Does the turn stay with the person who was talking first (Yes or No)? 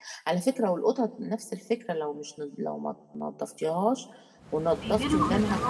No